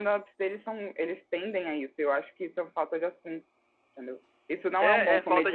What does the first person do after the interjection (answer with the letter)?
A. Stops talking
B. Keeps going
A